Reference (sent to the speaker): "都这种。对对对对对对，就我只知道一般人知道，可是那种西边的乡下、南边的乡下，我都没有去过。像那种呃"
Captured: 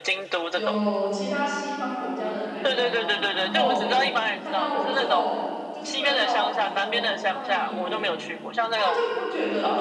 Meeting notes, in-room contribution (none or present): present